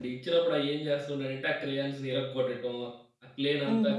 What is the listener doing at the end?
listening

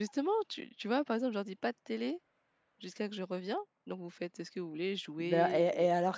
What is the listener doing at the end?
taking over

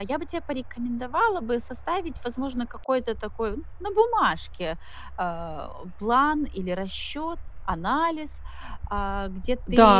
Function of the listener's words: taking over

